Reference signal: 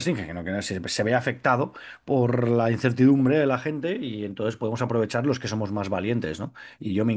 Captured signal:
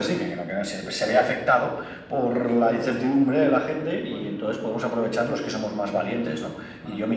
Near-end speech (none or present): present